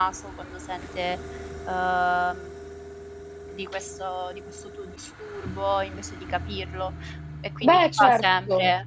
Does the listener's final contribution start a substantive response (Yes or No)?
No